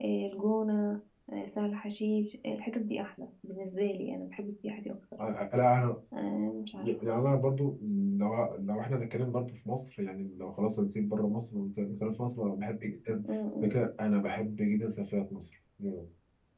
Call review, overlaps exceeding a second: none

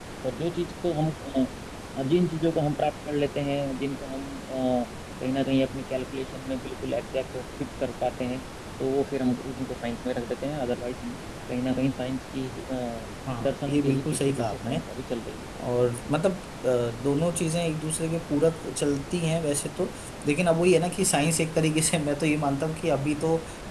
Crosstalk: present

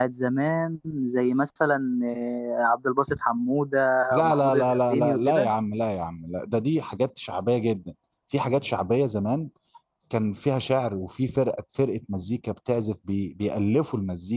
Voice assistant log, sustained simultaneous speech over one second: present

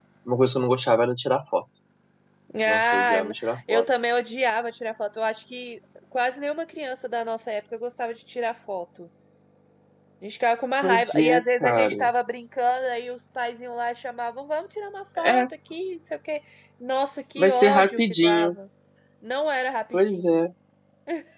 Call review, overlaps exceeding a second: present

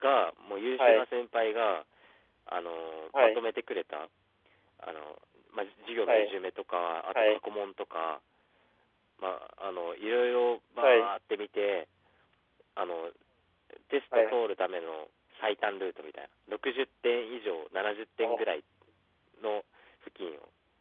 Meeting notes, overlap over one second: none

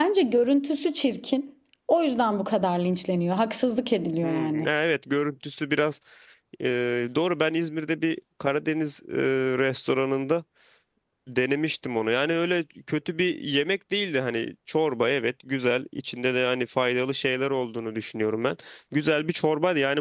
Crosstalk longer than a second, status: none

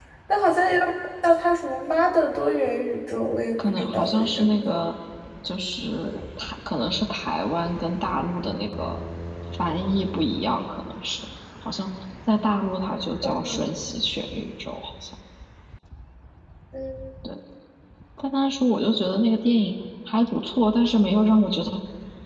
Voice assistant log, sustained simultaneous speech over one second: present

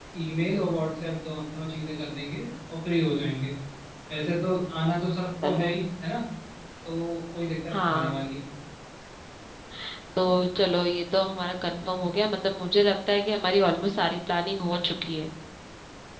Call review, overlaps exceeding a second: none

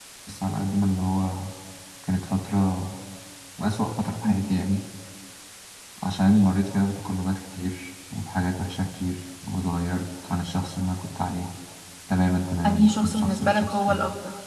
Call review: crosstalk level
present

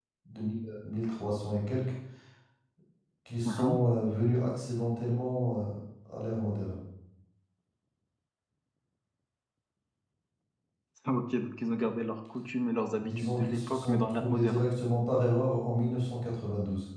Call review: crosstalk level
present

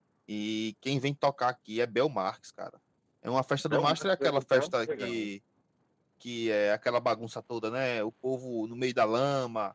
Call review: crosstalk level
present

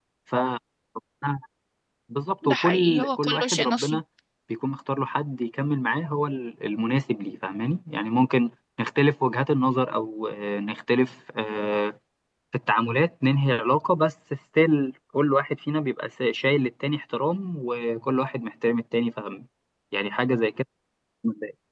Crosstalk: present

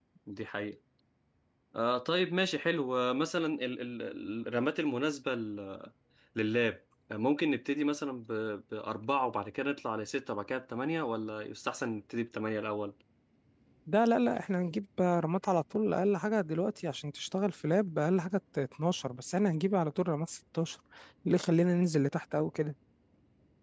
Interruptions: none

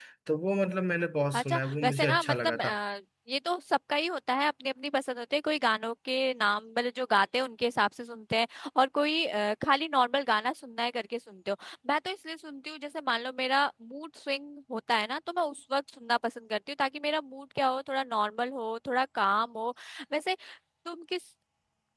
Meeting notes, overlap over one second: present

